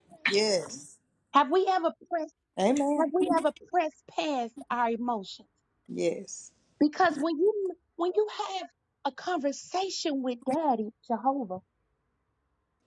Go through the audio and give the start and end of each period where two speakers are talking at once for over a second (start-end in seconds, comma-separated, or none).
none